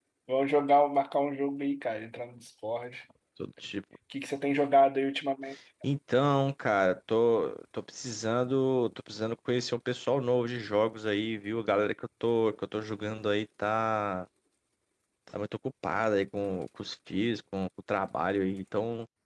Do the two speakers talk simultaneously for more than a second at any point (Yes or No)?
No